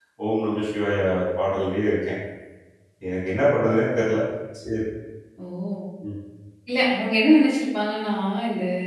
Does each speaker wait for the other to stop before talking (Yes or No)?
Yes